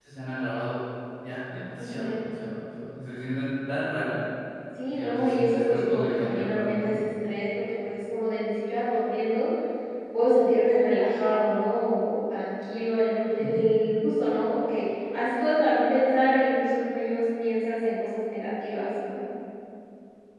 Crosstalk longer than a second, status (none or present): present